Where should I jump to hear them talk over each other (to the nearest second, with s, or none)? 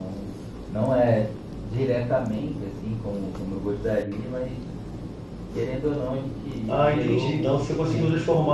7 s